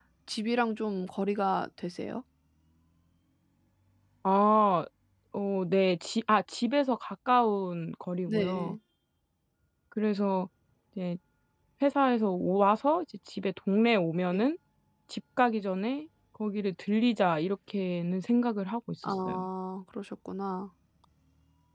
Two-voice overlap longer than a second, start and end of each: none

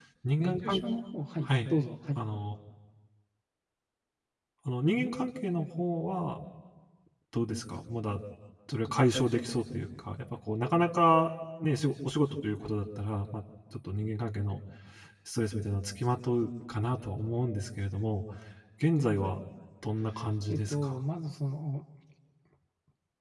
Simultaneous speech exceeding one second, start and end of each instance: none

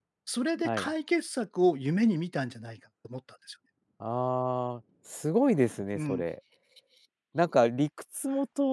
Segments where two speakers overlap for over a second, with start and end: none

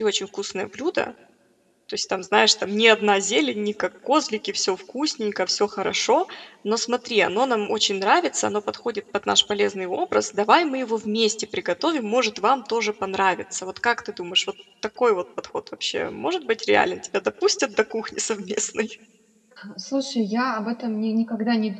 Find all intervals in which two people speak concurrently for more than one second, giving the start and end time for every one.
none

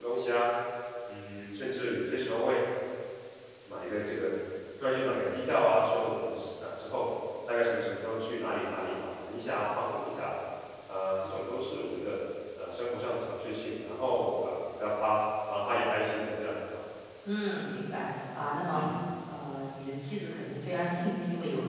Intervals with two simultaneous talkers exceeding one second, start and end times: none

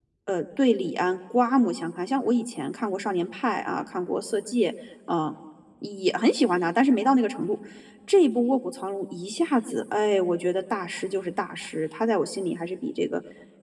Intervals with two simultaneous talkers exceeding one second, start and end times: none

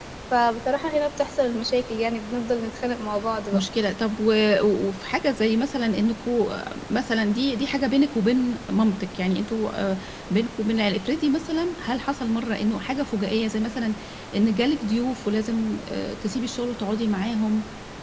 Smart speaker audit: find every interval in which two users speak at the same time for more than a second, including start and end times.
none

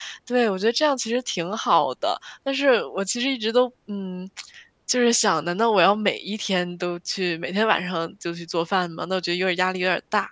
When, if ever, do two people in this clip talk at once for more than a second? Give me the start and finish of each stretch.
none

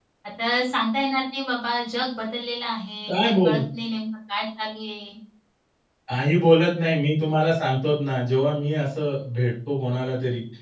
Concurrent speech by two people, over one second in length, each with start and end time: none

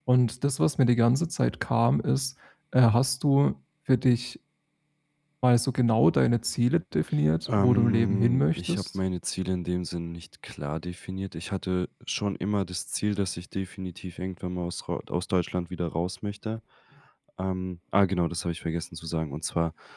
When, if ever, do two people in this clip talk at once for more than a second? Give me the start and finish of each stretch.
7.5-8.9

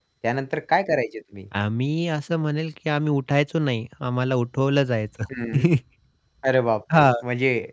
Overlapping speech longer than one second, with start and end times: none

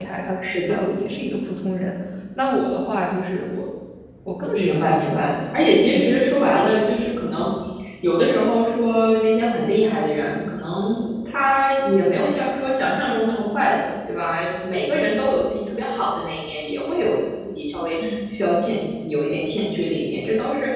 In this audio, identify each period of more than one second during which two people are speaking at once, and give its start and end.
4.5-6.3

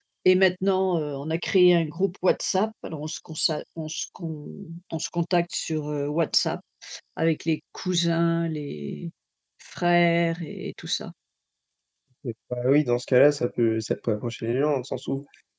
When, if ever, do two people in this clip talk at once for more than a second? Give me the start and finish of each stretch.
none

